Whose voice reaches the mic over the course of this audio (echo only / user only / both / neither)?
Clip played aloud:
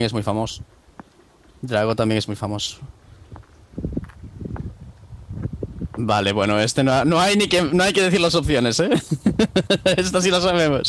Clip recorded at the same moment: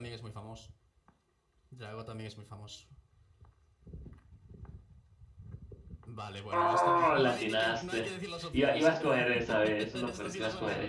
both